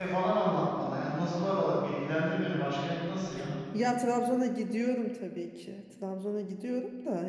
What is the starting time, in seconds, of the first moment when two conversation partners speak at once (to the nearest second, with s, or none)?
none